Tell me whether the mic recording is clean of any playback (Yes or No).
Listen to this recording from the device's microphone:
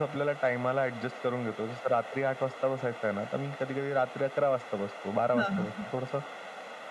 No